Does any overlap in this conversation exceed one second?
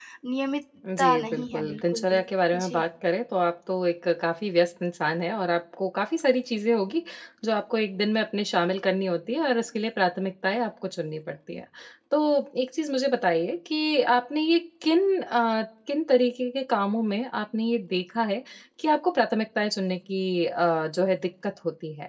Yes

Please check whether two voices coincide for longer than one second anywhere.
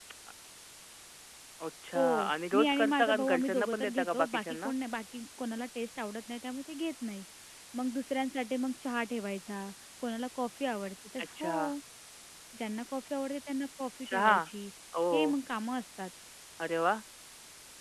Yes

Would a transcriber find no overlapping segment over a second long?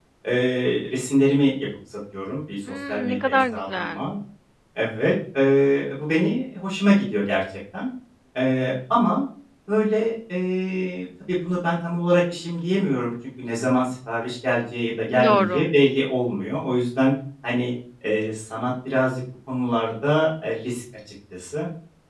No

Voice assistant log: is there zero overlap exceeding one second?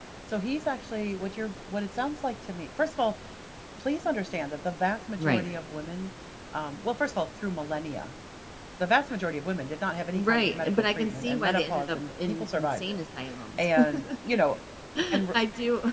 No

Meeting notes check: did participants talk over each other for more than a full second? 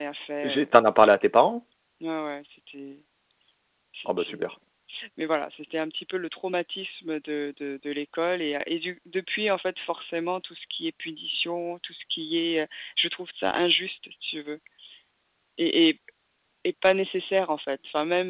No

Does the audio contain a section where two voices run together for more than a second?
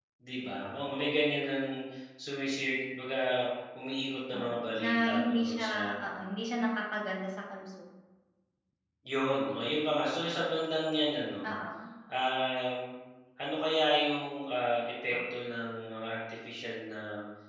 Yes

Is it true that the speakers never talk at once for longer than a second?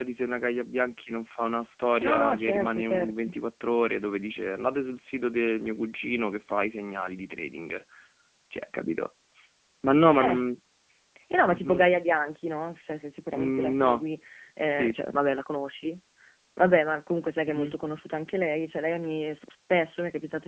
No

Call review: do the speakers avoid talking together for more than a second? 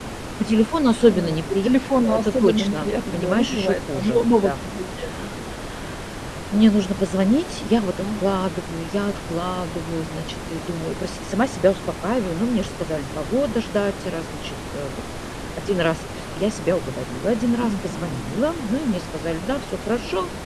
No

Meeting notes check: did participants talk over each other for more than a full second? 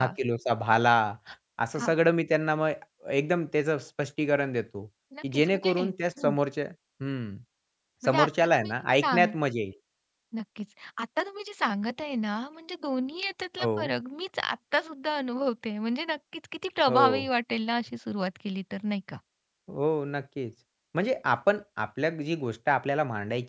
Yes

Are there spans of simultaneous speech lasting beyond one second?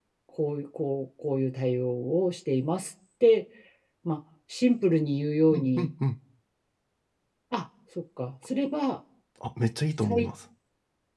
No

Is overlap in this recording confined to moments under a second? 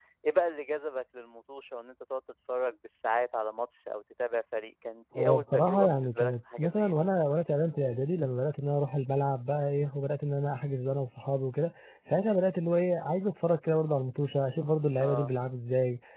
No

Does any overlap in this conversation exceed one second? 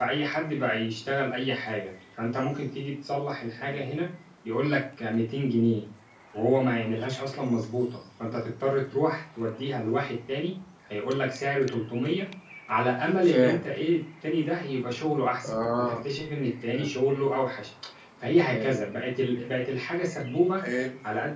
No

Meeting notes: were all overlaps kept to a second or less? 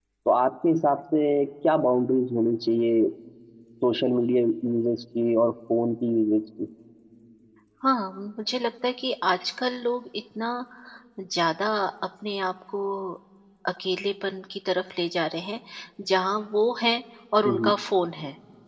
Yes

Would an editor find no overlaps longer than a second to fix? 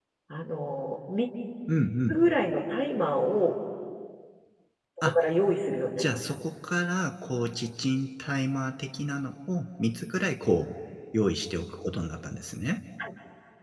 Yes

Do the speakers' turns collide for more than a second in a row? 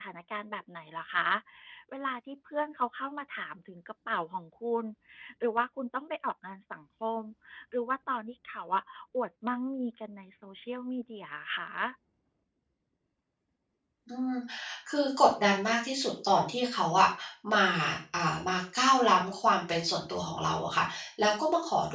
No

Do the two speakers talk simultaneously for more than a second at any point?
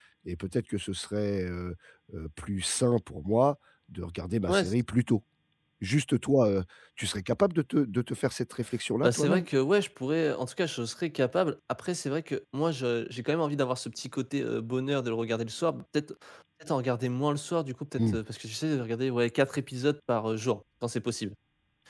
No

